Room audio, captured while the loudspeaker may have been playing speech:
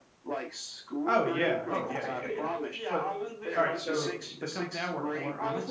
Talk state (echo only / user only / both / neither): both